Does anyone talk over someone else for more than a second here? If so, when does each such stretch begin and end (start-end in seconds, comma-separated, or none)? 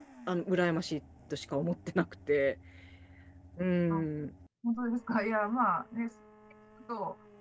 none